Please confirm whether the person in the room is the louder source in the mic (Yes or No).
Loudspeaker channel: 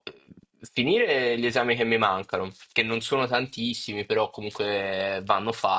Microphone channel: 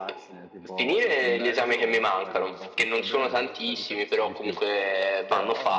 No